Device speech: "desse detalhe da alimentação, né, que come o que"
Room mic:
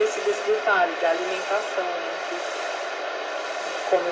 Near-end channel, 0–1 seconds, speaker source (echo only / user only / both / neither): echo only